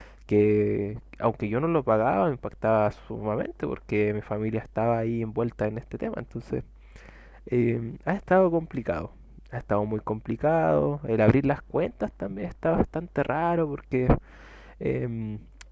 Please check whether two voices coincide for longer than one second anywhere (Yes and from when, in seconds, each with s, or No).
No